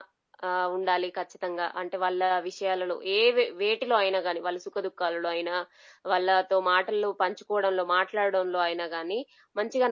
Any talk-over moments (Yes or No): No